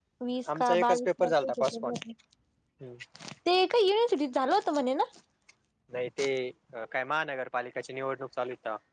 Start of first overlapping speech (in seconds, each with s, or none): 0.6 s